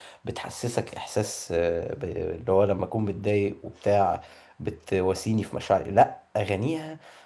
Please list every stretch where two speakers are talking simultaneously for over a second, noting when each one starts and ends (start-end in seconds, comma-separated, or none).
none